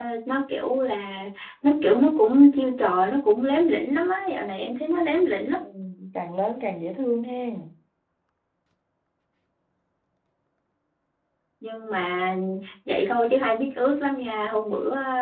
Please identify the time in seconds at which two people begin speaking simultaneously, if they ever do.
none

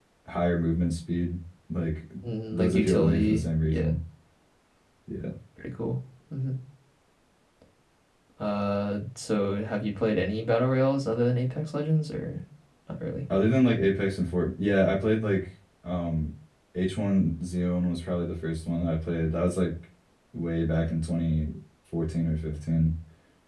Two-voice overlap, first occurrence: 2.5 s

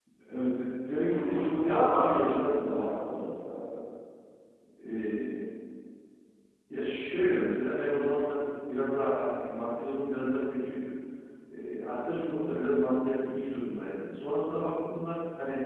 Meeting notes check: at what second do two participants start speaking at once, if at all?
1.0 s

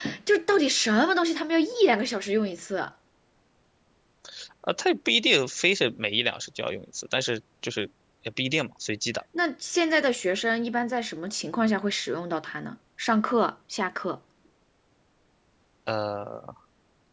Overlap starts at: none

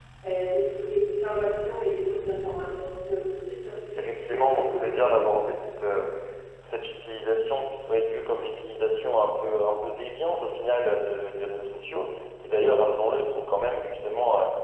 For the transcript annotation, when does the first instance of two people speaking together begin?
4.0 s

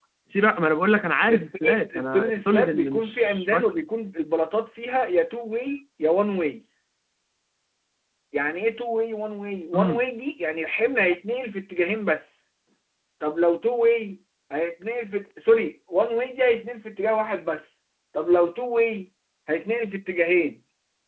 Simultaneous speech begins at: 1.3 s

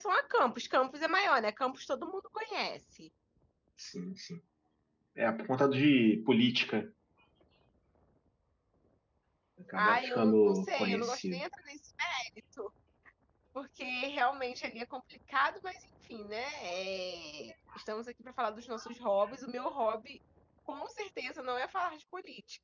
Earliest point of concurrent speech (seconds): 9.8 s

